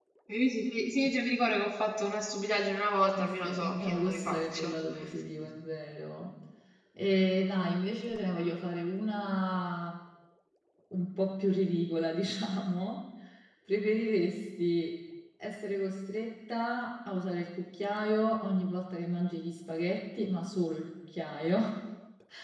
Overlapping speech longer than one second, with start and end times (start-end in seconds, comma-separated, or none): 3.2-4.8